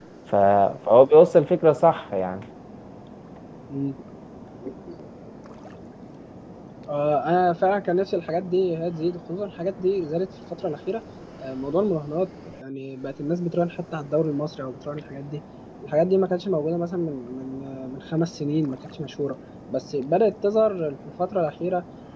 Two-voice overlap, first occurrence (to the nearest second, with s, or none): none